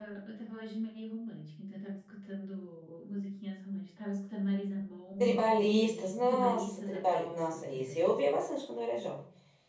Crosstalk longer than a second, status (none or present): present